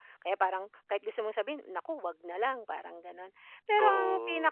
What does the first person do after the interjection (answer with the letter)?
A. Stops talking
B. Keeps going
B